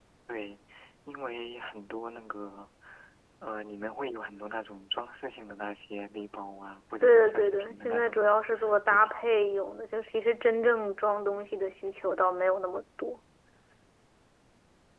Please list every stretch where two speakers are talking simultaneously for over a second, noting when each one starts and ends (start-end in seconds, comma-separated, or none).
7.0-8.3